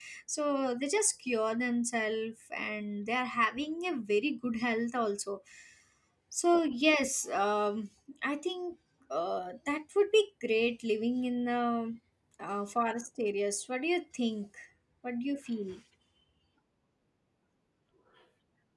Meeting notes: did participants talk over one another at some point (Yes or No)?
No